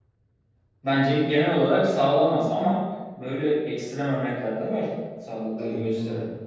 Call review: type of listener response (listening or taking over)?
taking over